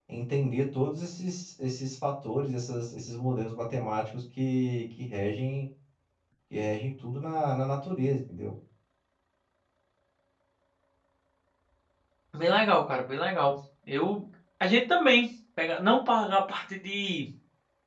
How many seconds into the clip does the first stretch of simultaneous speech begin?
none

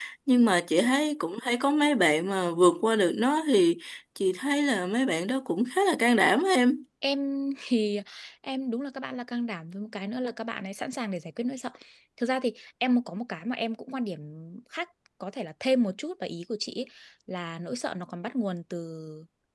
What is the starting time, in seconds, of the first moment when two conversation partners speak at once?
none

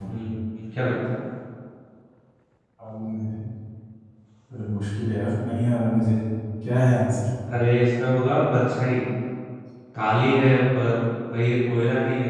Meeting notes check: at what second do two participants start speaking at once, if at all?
none

